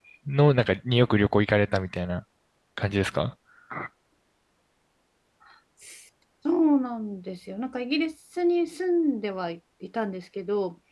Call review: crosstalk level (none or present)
none